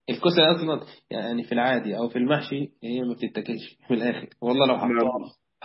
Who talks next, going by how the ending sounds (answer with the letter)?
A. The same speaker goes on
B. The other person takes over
A